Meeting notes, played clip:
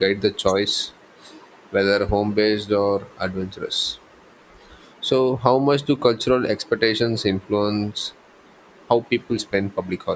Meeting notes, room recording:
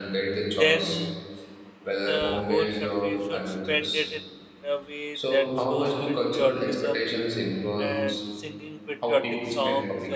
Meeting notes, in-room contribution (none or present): present